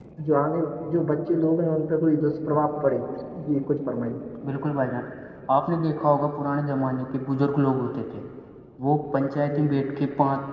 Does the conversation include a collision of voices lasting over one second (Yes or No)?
No